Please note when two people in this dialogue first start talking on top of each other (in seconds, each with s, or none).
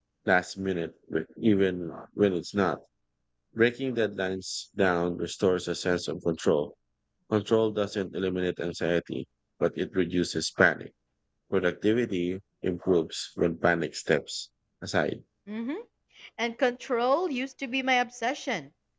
none